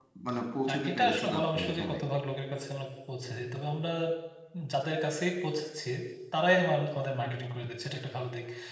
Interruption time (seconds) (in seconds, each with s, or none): 0.7 s